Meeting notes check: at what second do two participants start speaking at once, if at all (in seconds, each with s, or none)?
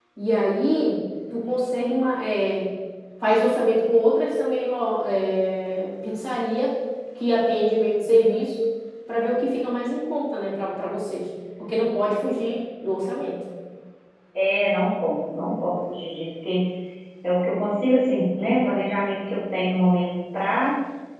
none